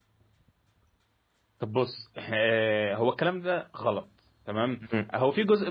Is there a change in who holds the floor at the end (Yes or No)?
No